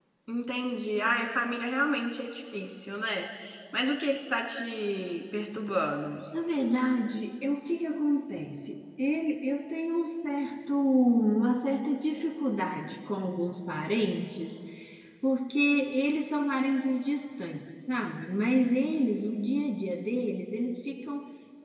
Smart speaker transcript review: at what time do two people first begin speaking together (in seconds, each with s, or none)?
none